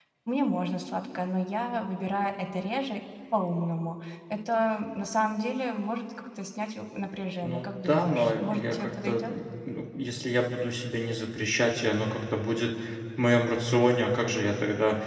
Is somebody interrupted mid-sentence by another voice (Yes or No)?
Yes